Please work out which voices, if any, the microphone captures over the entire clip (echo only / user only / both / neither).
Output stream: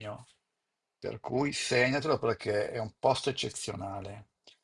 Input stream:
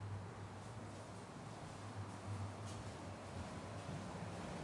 neither